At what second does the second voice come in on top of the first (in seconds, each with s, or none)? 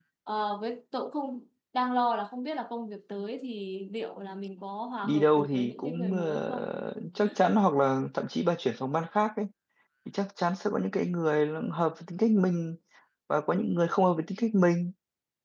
5.0 s